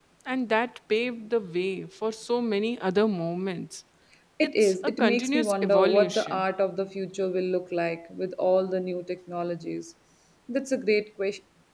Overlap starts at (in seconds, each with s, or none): 4.6 s